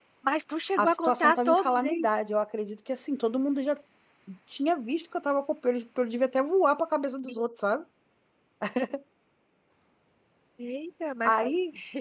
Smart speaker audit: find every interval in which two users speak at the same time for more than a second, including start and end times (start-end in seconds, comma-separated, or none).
0.8-2.1